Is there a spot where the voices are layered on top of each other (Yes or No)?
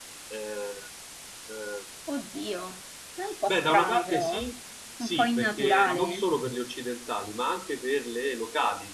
Yes